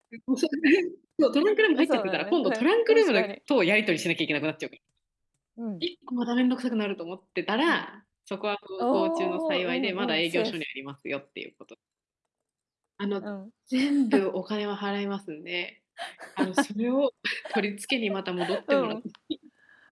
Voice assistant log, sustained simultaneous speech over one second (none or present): present